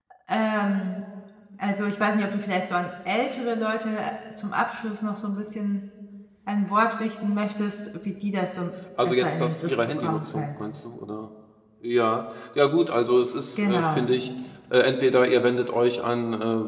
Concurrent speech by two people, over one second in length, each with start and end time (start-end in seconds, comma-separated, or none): 9.1-10.6